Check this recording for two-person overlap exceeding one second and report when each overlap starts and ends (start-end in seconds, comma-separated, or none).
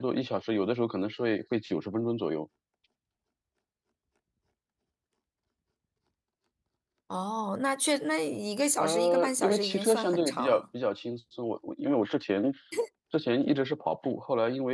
8.8-10.6